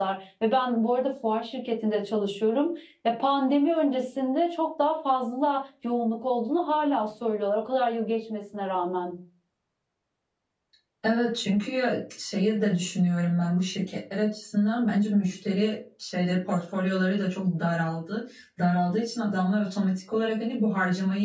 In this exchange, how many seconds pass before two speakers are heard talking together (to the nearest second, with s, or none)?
none